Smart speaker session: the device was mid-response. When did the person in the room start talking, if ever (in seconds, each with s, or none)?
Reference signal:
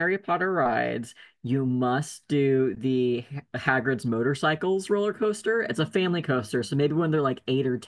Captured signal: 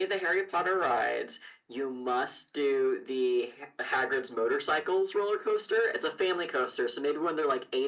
none